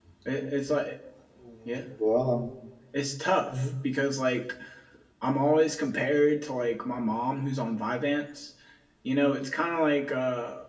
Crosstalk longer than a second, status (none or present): none